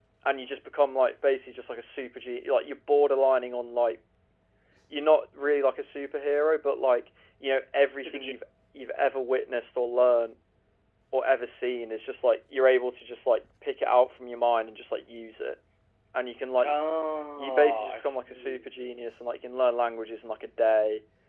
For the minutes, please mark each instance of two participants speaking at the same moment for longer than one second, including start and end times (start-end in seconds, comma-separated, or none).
17.4-18.6